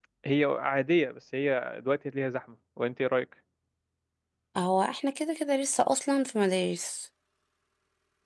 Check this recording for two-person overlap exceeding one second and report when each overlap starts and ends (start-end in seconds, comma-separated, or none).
none